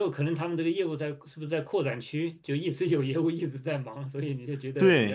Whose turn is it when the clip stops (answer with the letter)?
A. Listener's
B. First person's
A